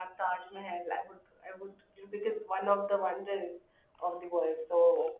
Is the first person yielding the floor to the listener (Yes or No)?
Yes